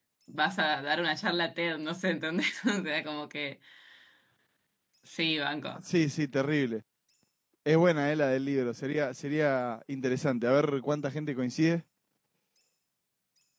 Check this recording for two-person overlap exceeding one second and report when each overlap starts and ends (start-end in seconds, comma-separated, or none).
none